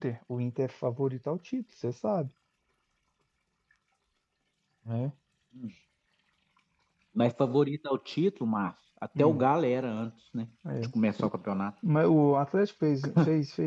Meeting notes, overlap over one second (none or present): none